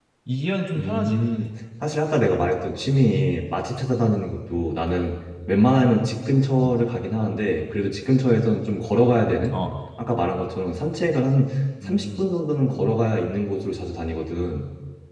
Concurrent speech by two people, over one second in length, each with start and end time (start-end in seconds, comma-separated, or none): none